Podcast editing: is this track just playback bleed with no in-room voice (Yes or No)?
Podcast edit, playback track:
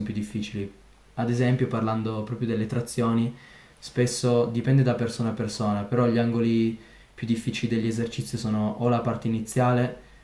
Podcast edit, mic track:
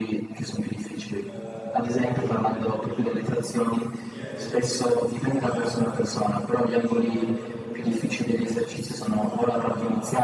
No